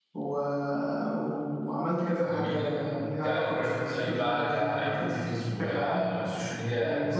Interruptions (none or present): present